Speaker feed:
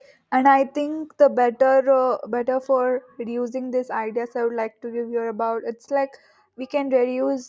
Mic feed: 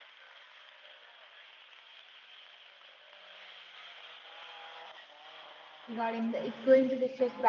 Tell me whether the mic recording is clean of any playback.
Yes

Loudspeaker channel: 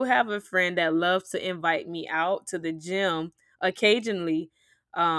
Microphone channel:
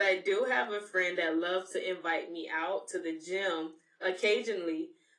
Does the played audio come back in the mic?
Yes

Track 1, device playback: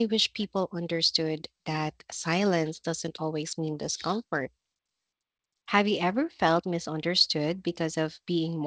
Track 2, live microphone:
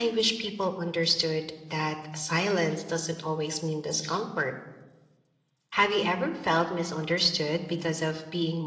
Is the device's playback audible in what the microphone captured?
Yes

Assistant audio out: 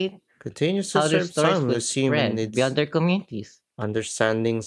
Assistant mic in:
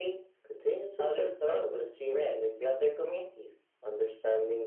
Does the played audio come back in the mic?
Yes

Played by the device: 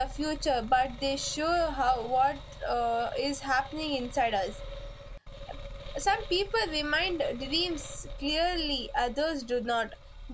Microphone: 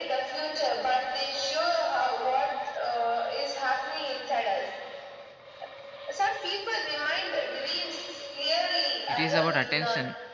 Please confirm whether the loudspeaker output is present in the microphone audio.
Yes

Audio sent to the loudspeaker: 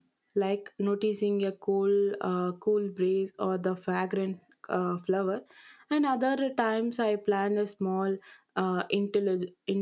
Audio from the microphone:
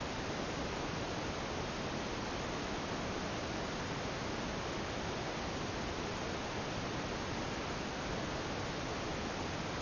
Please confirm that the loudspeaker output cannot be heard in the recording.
Yes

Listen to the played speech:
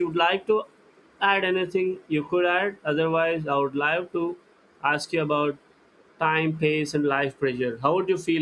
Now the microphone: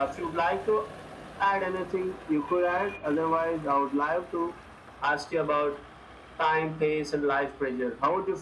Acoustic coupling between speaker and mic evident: Yes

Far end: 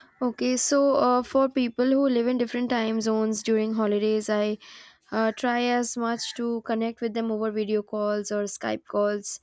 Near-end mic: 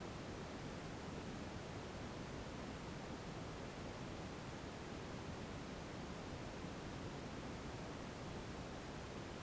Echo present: No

